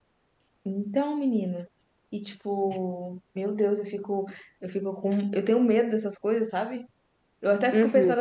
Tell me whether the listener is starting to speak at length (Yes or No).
No